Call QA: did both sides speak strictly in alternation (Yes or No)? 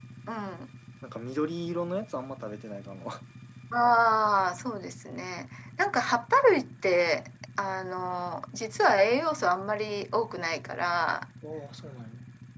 Yes